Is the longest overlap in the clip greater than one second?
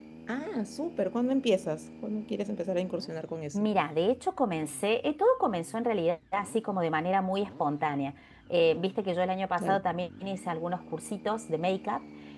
No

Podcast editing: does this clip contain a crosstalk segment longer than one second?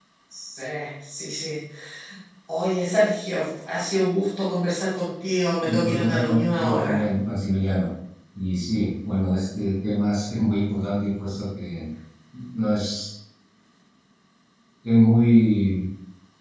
Yes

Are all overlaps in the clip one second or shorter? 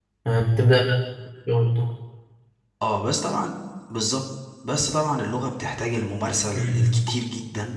Yes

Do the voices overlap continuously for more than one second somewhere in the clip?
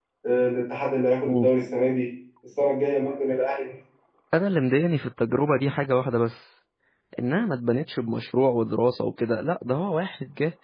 No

